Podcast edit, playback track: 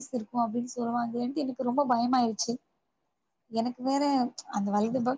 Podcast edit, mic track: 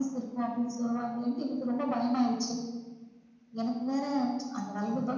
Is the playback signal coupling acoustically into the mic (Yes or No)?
Yes